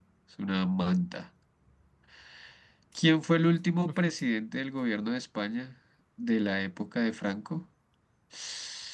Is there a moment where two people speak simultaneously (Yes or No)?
No